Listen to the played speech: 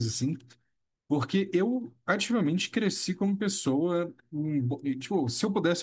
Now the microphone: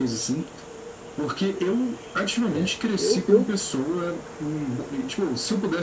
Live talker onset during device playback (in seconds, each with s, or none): 2.5 s